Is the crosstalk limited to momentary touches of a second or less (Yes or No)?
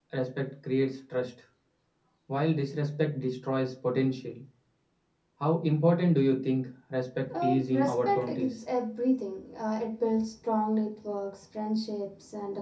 No